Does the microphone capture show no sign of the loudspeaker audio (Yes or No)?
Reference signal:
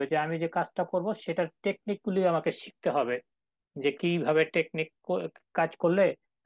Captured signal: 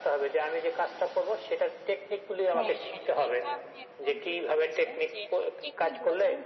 No